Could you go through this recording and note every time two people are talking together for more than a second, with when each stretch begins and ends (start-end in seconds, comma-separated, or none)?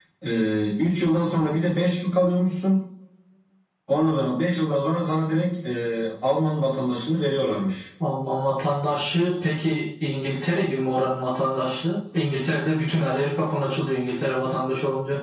none